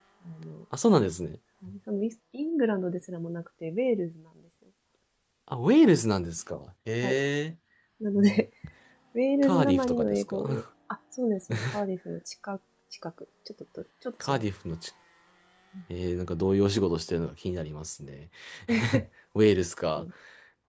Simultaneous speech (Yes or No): Yes